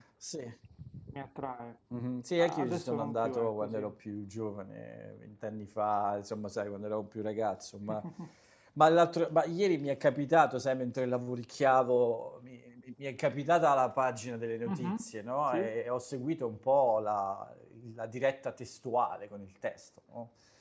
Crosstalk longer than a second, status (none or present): present